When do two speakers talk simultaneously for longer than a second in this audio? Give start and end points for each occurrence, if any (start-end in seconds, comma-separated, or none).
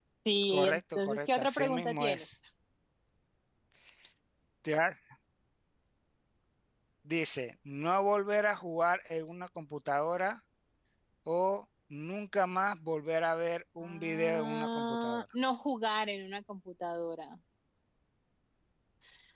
0.5-2.2, 13.8-15.2